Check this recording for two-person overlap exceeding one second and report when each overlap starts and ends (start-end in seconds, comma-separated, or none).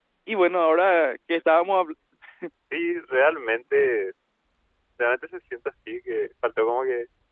none